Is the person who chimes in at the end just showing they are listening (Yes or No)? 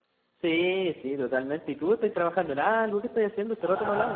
No